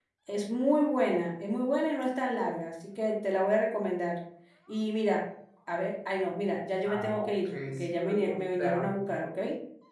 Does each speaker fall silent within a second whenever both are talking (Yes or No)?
No